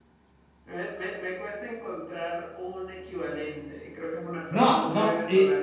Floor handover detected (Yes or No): Yes